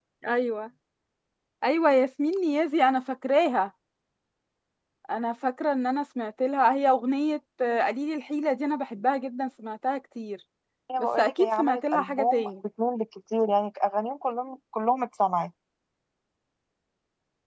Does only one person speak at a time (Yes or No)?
No